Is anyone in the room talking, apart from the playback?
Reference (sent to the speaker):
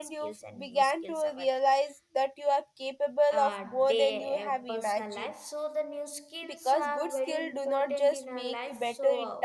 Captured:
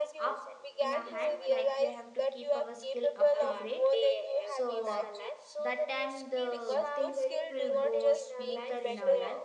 Yes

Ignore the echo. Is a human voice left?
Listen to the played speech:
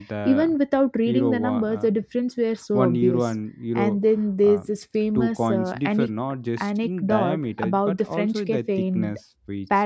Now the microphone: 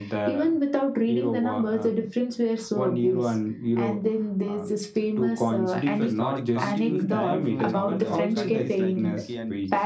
Yes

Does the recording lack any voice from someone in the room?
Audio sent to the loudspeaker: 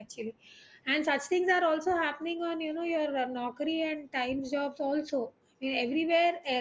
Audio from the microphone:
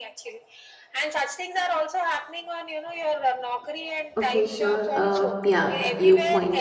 No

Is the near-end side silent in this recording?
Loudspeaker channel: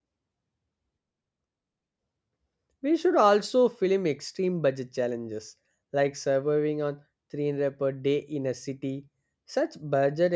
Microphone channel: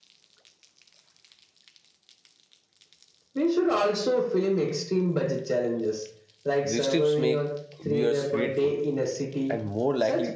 No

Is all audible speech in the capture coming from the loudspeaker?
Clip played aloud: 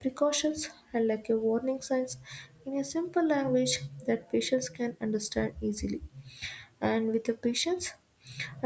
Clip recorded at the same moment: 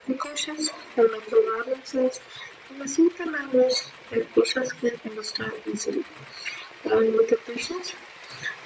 Yes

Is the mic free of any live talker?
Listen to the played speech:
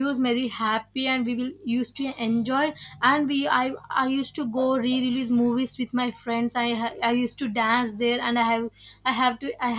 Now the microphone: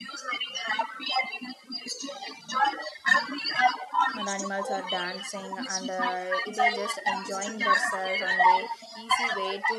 No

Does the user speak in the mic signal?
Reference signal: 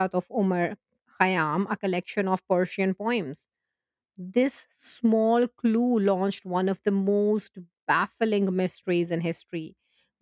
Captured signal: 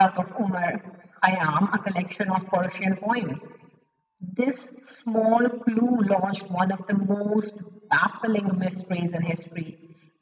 No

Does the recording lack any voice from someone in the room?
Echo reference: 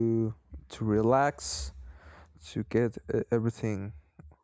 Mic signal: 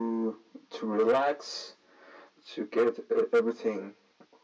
Yes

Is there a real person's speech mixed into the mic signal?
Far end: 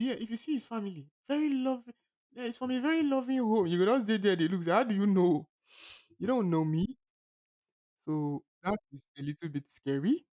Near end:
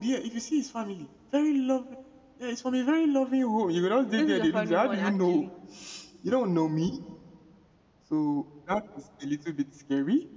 Yes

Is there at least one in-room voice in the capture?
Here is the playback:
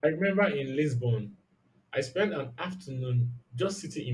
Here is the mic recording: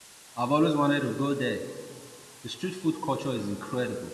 Yes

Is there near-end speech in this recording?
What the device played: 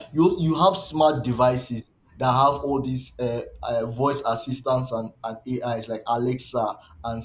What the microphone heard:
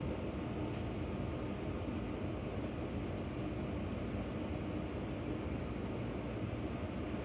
No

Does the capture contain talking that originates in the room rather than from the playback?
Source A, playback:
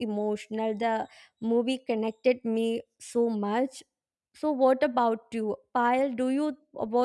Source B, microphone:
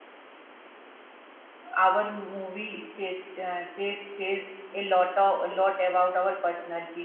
Yes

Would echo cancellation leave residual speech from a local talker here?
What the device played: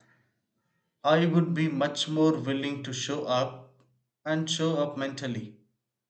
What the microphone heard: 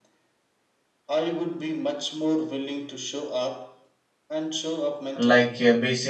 Yes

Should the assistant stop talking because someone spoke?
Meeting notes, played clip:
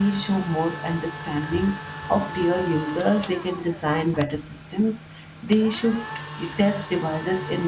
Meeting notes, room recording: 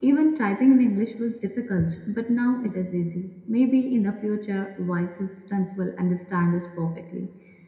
Yes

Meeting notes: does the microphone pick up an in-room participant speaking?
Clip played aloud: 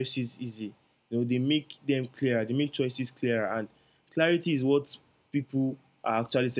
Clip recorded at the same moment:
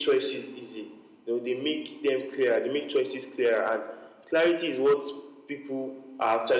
No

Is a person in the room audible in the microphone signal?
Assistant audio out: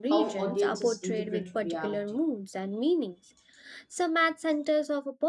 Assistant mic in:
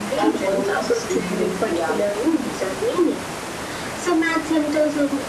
No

